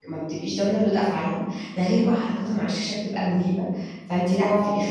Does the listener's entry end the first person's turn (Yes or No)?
No